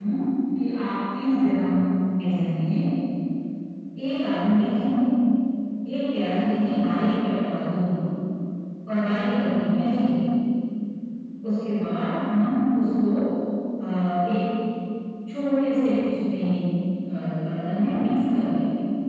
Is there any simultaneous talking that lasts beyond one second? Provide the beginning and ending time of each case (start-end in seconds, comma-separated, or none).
none